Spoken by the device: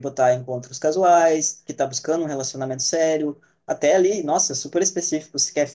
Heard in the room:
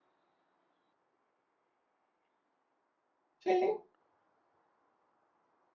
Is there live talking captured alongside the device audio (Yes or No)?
Yes